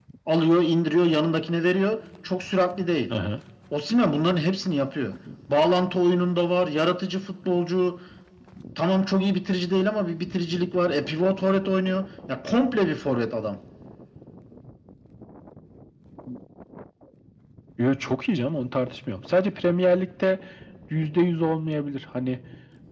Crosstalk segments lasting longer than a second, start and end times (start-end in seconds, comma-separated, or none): none